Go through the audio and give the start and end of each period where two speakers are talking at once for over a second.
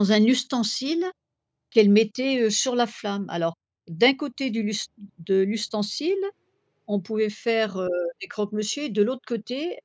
none

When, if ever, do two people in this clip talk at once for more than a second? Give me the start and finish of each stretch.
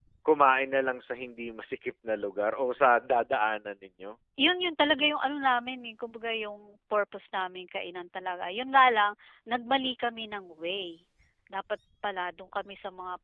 none

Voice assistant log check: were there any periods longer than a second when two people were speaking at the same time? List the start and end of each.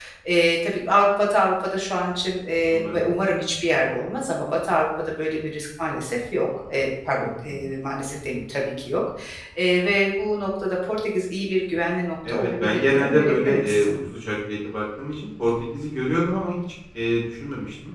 12.3-13.9

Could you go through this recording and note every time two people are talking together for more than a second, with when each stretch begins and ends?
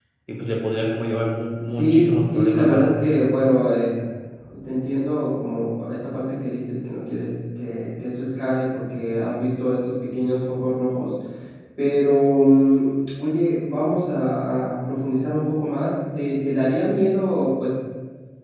1.7-3.1

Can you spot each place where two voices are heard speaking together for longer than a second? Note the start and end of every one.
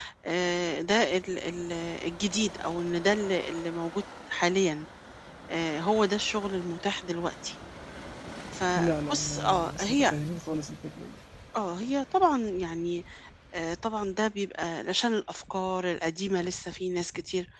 8.8-10.1

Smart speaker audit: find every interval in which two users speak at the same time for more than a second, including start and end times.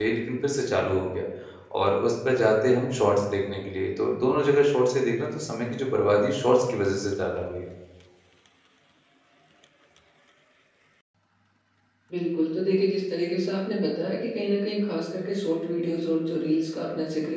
none

